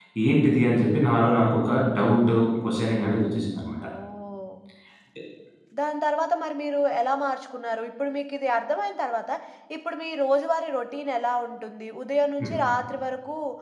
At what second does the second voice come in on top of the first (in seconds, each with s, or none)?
none